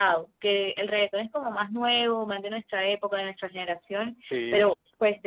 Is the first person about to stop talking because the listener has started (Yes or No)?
No